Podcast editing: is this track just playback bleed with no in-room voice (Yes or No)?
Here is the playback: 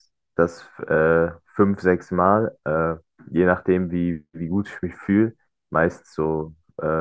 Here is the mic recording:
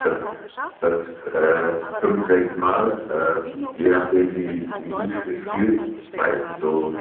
No